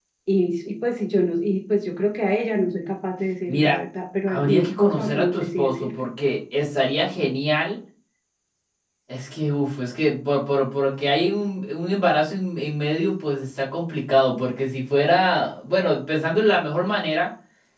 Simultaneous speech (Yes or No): Yes